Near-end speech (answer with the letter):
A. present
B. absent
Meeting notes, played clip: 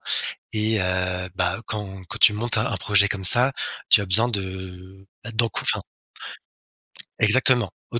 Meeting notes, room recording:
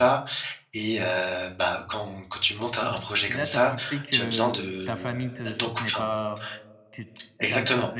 A